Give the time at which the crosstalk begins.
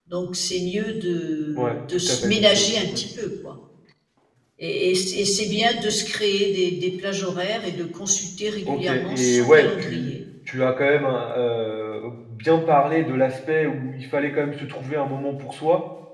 1.6 s

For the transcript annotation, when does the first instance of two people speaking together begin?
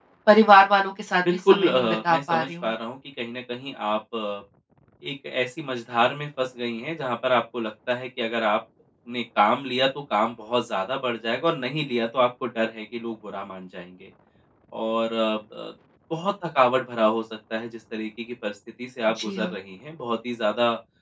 1.2 s

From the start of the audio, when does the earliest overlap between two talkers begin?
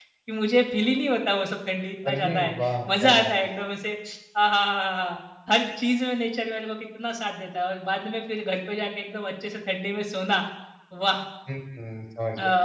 2.0 s

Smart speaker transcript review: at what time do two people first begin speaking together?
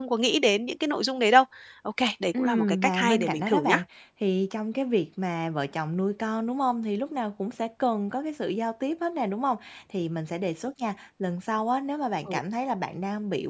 2.4 s

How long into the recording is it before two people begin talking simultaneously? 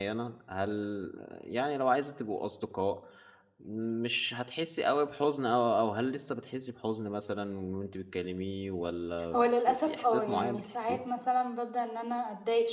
9.3 s

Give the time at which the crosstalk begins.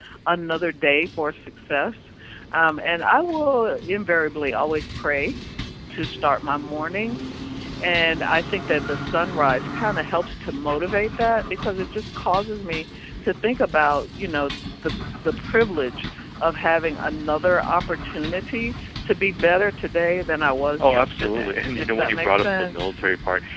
20.8 s

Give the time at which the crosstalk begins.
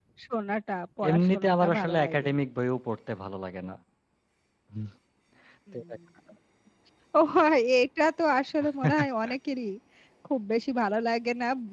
1.1 s

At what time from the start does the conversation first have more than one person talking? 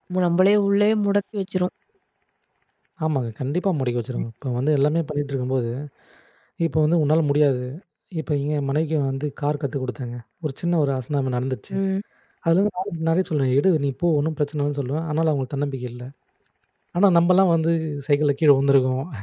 none

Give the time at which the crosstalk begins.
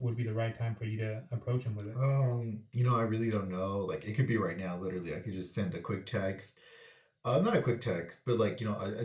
none

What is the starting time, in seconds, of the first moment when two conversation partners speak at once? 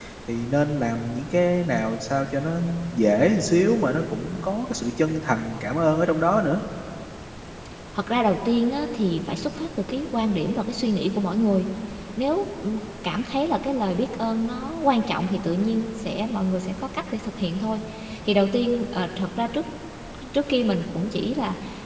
none

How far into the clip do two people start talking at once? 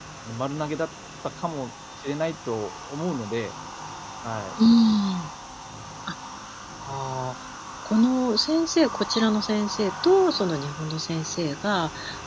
none

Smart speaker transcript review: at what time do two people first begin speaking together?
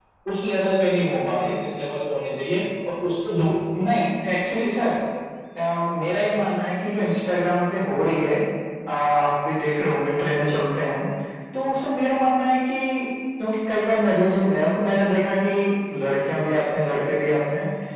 none

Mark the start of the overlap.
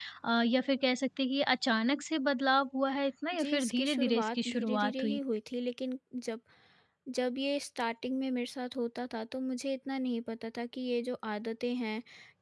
3.3 s

